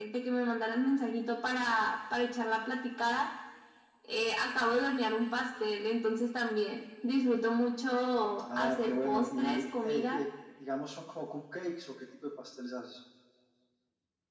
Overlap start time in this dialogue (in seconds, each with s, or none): 8.4 s